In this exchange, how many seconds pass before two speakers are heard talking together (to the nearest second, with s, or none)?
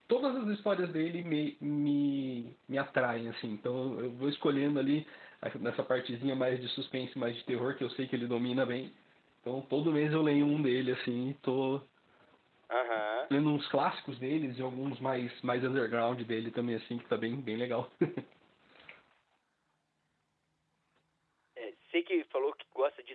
none